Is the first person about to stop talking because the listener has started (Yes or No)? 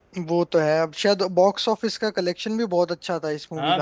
Yes